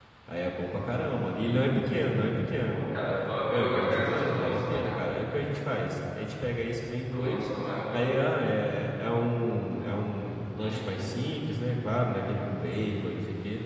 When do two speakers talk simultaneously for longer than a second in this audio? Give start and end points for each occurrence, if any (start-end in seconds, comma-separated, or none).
3.5-5.1